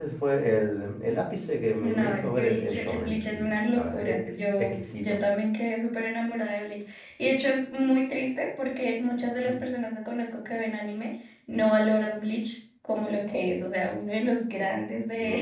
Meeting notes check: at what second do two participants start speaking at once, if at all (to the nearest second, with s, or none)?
2 s